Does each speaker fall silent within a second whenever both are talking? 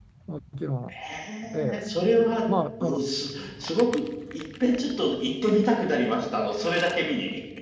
Yes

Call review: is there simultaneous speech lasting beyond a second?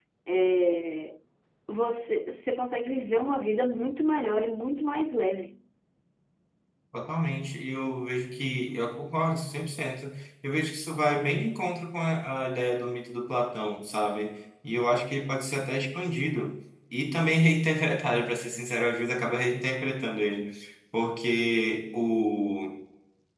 No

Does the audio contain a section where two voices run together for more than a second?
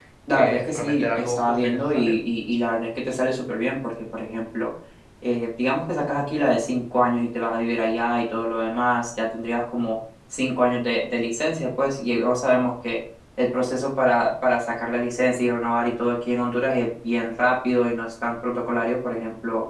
Yes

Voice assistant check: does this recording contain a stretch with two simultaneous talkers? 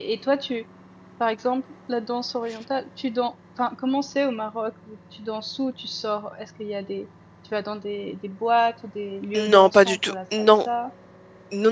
Yes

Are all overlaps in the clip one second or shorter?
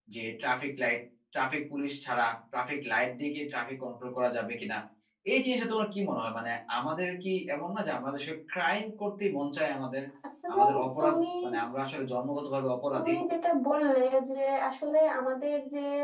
Yes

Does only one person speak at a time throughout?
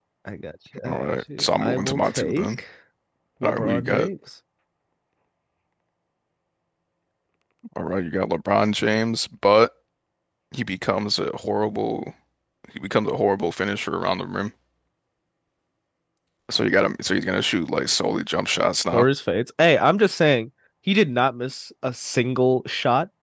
No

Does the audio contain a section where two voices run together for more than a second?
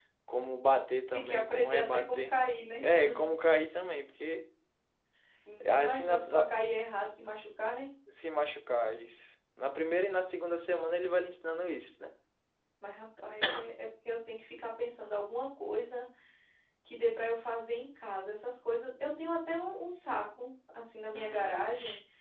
Yes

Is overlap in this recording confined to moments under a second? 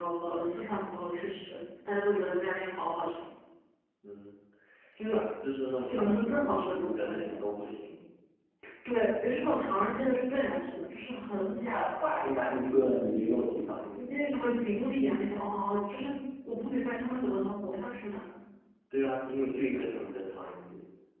No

